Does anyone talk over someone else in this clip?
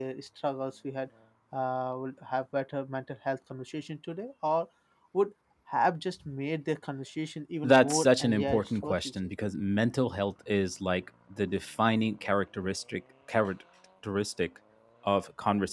Yes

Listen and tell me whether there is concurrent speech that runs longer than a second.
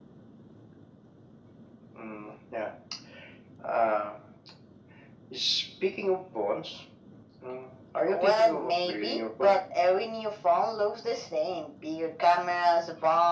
Yes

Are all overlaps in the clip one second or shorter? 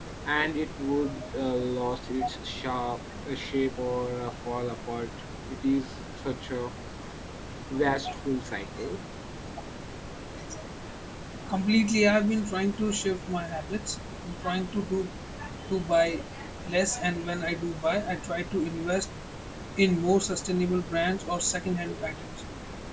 Yes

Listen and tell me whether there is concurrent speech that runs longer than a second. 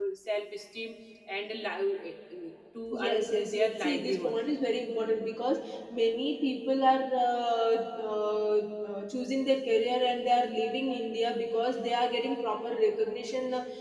Yes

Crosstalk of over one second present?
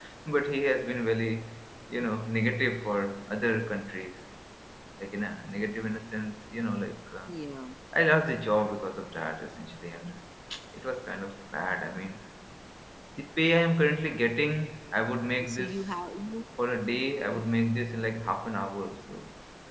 No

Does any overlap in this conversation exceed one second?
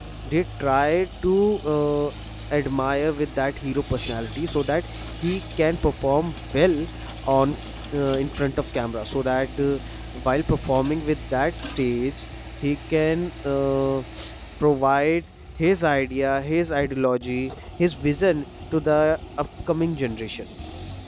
No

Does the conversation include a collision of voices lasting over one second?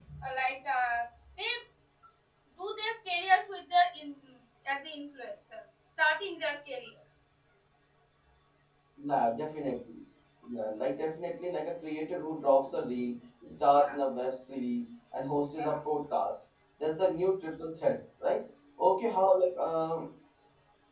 No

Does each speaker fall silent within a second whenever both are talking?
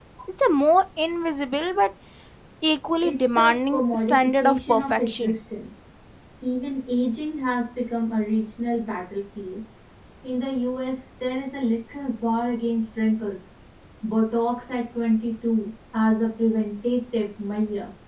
No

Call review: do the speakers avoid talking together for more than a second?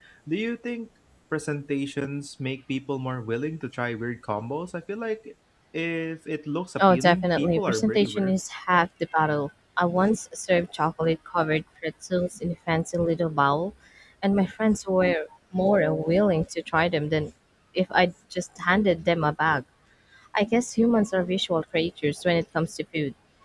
No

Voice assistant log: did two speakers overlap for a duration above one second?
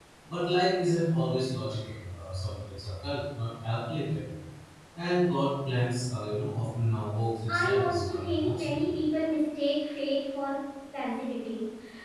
Yes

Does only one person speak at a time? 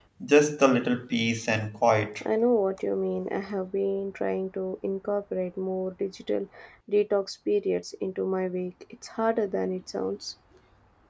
Yes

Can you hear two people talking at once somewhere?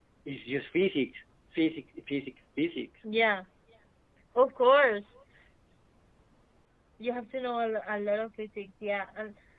No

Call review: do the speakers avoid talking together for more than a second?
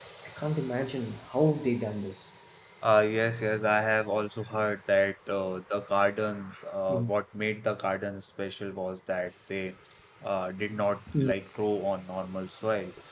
Yes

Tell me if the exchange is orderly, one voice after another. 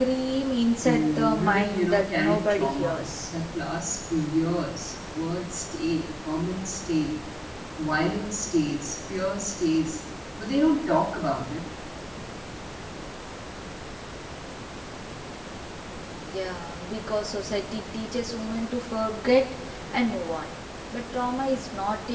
No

